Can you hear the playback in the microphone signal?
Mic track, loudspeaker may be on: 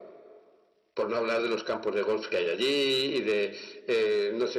Yes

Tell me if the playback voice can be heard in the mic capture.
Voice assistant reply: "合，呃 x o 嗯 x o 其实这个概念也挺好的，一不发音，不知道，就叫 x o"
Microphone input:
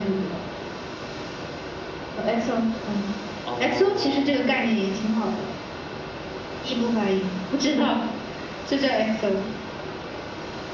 Yes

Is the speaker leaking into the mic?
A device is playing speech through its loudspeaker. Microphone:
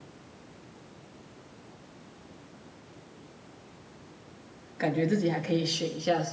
No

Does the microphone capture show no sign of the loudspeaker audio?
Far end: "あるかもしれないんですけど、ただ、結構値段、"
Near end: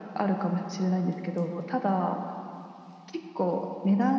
No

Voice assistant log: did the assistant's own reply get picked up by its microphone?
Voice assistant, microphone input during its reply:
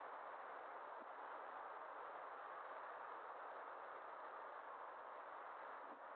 No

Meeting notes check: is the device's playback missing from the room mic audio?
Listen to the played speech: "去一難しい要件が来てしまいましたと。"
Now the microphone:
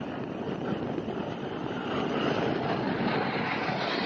Yes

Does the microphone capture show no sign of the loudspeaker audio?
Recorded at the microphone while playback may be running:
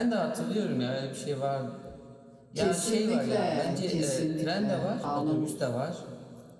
No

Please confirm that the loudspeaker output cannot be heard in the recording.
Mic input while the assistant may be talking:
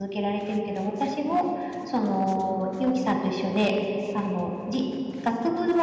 Yes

